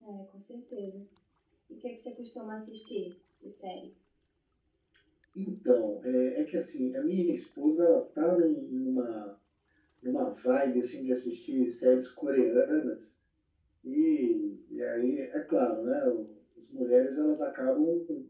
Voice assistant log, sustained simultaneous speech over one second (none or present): none